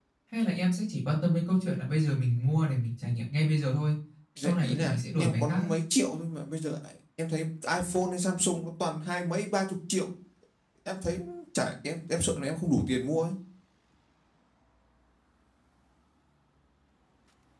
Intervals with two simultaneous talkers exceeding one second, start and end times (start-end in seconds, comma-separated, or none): 4.4-5.7